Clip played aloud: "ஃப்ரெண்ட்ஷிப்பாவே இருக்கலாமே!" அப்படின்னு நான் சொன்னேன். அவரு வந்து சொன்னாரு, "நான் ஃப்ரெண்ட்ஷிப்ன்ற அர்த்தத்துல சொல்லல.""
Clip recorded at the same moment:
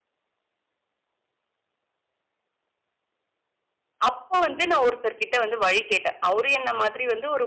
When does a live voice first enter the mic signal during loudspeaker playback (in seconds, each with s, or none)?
4.1 s